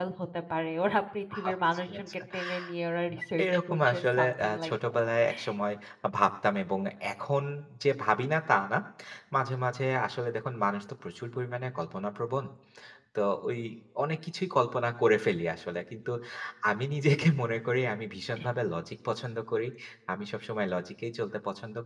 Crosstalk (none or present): present